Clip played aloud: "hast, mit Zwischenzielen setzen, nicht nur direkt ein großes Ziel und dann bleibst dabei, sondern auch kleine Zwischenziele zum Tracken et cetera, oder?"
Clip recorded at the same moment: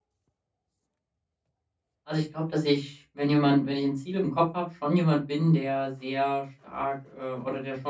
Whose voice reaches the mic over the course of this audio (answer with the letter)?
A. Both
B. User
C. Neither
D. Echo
B